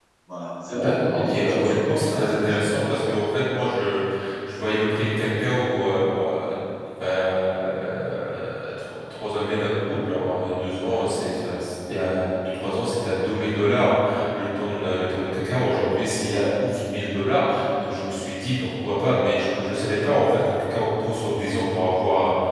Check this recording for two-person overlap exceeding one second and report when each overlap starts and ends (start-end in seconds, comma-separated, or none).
0.7-2.8